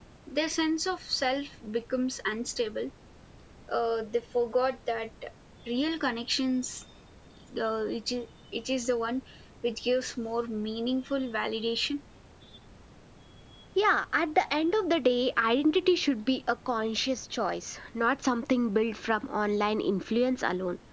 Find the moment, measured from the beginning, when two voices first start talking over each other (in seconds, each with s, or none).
none